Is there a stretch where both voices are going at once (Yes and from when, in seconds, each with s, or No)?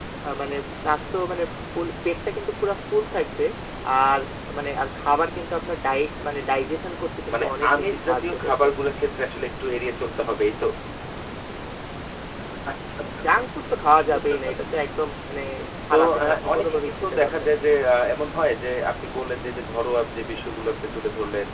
Yes, from 7.3 s